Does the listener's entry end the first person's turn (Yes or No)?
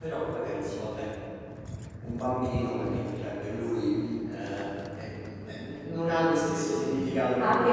Yes